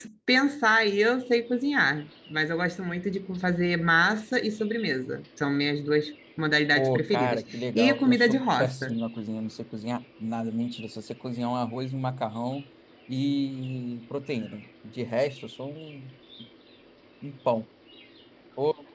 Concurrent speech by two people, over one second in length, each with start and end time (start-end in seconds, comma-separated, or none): 6.8-8.9